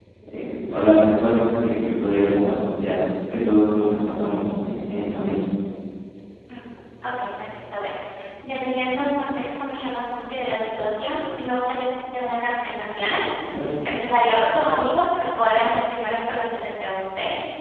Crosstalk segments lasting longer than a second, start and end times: none

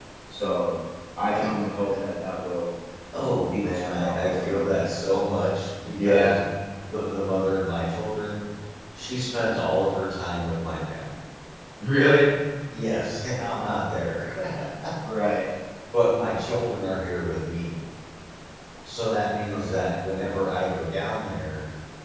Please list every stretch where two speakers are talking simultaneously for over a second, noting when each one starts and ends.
3.5-4.9

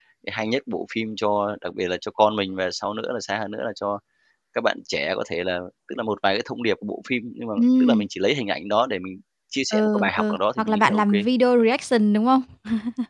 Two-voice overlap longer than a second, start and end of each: 9.7-11.2

